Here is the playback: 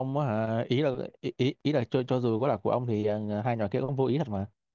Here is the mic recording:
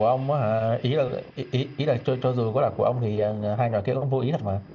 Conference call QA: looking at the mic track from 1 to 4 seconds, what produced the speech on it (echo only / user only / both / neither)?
echo only